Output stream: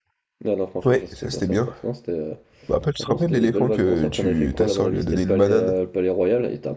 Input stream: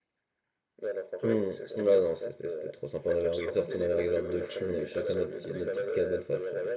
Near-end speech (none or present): present